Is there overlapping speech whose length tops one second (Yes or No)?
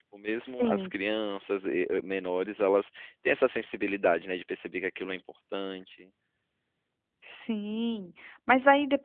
No